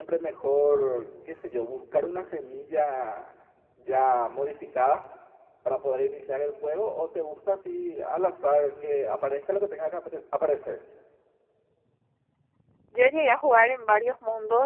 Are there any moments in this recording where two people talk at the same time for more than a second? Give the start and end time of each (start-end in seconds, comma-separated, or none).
none